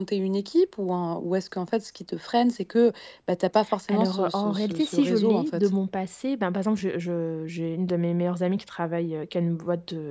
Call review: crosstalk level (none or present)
present